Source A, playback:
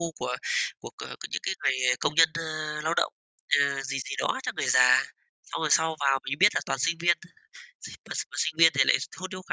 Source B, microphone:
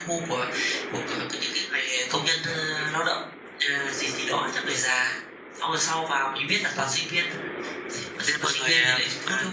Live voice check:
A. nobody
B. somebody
B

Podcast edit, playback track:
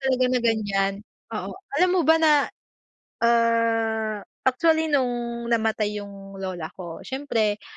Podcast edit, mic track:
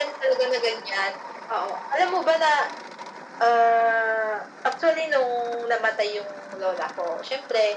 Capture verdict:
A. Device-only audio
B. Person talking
A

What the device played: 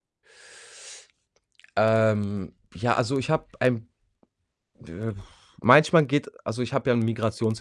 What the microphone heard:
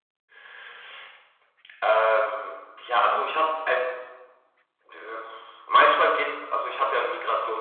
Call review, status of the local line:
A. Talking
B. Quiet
A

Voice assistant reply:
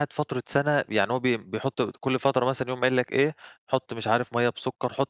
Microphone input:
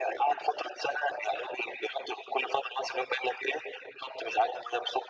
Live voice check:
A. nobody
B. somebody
A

